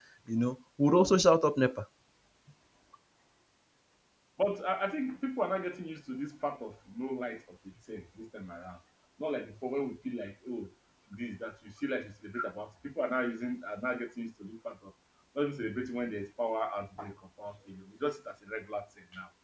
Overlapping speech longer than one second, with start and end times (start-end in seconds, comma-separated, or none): none